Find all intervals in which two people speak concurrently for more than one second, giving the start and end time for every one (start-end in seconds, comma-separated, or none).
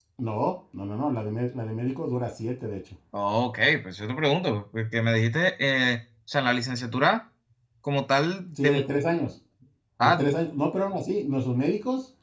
none